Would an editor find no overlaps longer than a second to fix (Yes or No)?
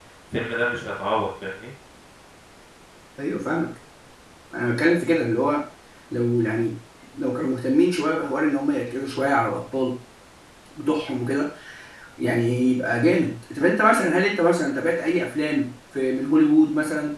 Yes